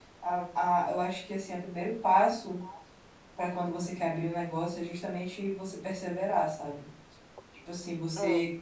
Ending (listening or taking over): listening